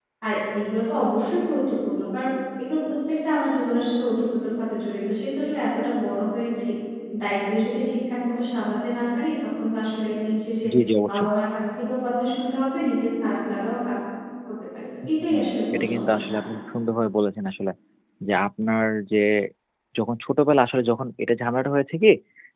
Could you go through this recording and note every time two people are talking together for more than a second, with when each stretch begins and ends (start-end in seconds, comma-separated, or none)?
15.1-16.4